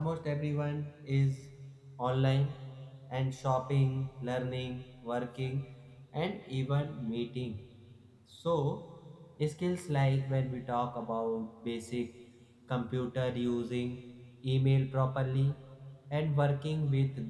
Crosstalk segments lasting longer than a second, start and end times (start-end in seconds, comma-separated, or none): none